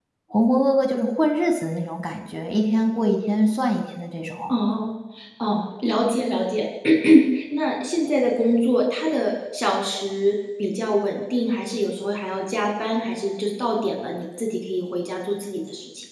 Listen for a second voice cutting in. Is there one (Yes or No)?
No